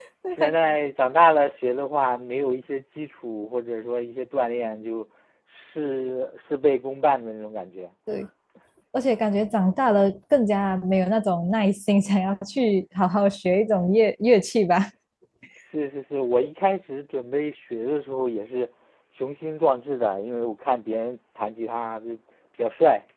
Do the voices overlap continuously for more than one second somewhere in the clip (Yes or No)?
No